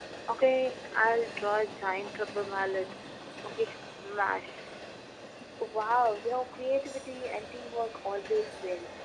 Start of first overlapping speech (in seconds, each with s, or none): none